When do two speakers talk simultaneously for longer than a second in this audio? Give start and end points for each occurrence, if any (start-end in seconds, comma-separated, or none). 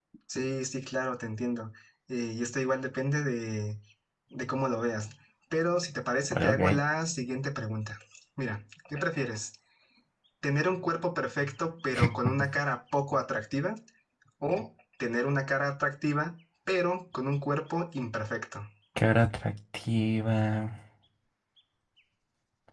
none